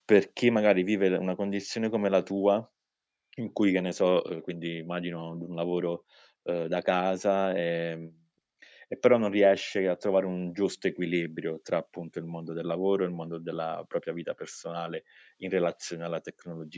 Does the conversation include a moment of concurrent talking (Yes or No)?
No